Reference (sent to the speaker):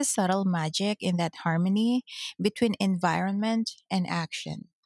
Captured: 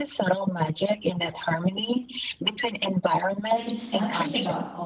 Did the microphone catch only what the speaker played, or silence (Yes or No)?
No